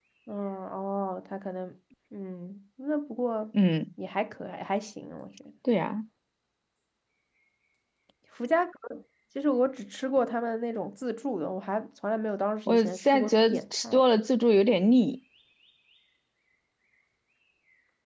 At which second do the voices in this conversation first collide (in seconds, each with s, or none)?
12.7 s